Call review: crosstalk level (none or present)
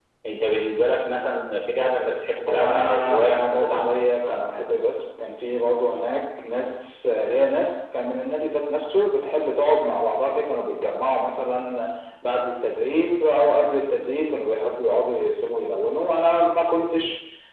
present